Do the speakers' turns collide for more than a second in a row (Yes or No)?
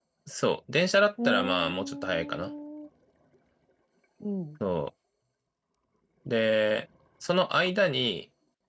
Yes